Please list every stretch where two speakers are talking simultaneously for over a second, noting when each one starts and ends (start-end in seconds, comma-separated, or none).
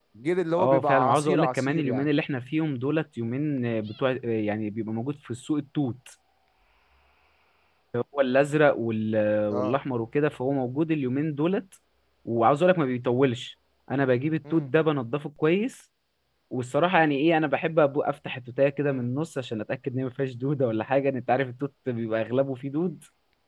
0.6-2.1